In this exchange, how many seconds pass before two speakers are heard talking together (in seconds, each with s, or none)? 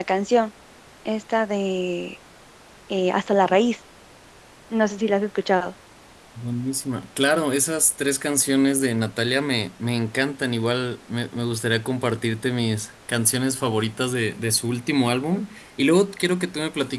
none